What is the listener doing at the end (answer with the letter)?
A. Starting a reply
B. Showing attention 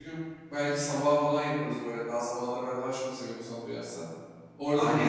A